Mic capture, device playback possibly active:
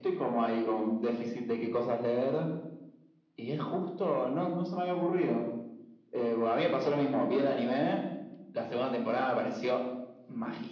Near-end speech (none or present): none